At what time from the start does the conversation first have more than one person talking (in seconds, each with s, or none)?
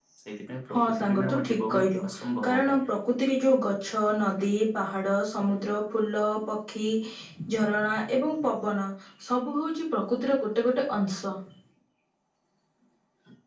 0.7 s